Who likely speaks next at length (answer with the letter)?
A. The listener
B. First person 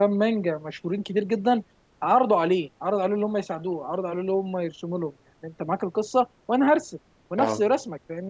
B